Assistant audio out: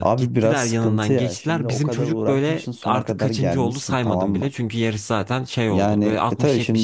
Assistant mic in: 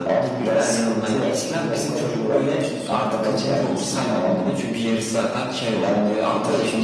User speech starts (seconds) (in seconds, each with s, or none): none